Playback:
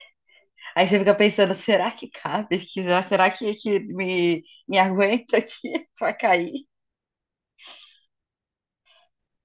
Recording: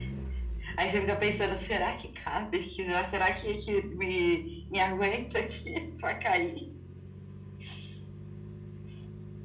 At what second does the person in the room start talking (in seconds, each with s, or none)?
none